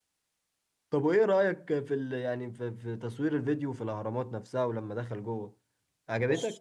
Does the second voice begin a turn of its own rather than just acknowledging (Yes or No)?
Yes